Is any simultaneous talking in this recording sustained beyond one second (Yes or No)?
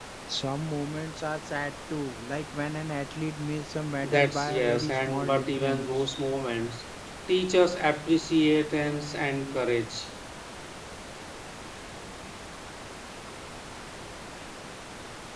Yes